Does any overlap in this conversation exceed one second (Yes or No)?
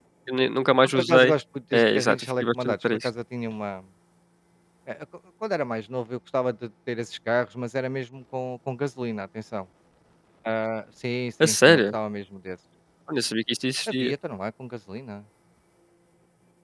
Yes